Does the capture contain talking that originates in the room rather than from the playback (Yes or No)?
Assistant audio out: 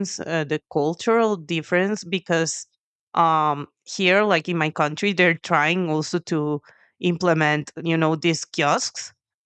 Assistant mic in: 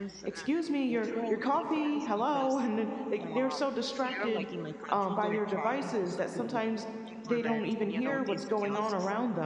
Yes